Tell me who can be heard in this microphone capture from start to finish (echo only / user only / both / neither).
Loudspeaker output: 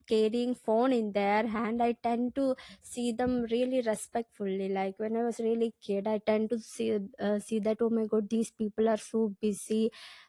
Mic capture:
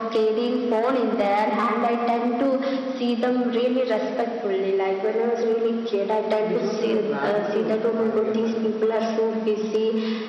both